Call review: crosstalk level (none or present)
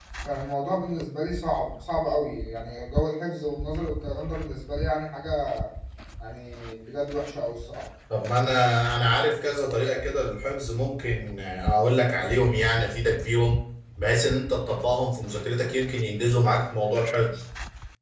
none